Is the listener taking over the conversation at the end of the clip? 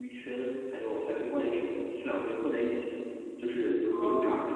Yes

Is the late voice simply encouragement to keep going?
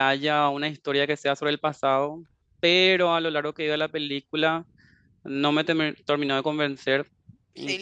Yes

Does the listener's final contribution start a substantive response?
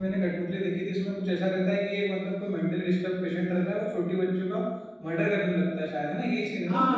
Yes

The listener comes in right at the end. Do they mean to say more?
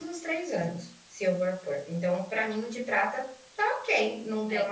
Yes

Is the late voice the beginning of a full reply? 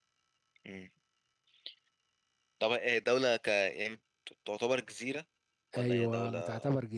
Yes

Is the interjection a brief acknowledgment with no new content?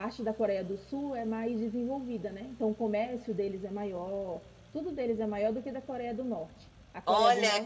No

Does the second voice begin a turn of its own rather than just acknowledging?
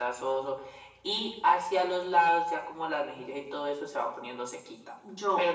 No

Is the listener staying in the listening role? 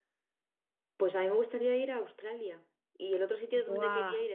Yes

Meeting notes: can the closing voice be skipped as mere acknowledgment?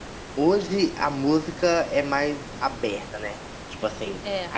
Yes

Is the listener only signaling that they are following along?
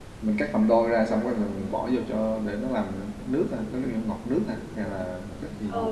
No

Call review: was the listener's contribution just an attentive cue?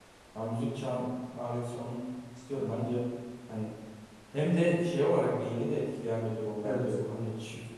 Yes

